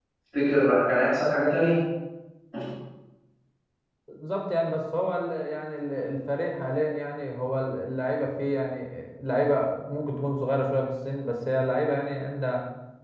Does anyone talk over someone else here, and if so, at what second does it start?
none

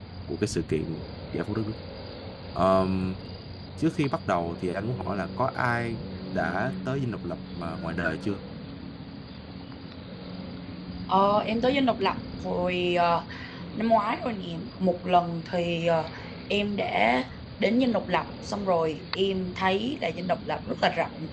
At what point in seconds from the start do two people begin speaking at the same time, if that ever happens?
none

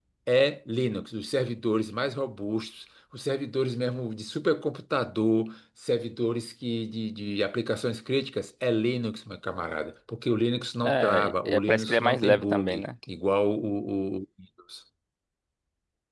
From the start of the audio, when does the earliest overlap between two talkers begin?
11 s

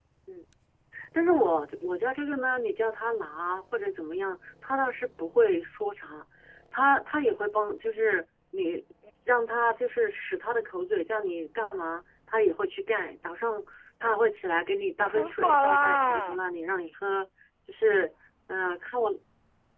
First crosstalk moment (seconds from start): 15 s

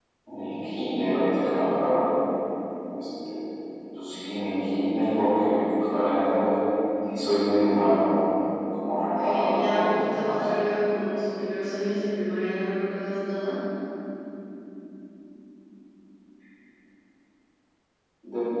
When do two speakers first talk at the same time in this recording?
9 s

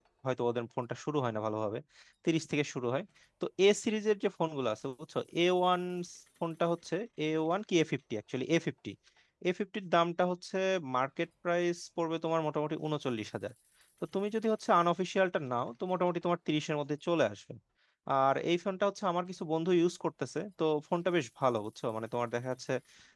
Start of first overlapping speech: none

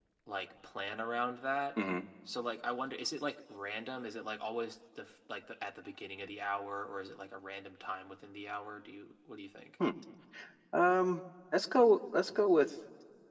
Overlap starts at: none

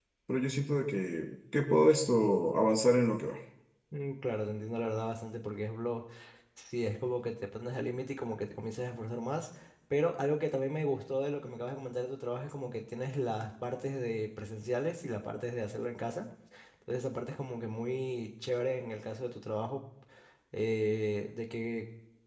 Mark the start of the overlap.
none

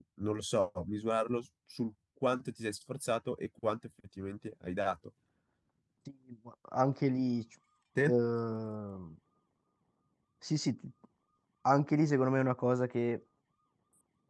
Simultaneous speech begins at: none

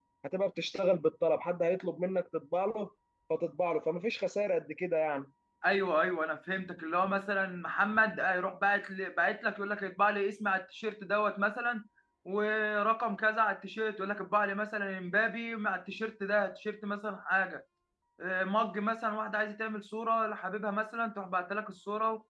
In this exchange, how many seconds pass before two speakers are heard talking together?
none

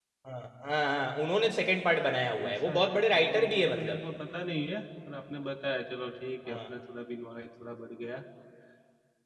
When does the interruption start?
2 s

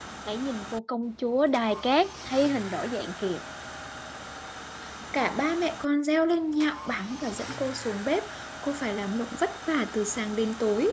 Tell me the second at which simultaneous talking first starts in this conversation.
none

